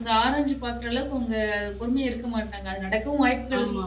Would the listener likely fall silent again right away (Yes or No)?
Yes